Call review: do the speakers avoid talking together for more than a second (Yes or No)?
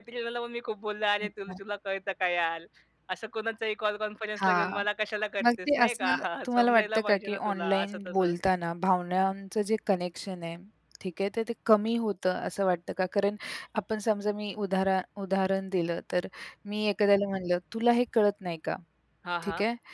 No